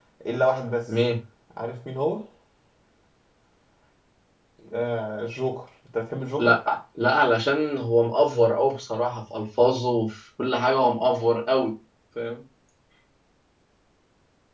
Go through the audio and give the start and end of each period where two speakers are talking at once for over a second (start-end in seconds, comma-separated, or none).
none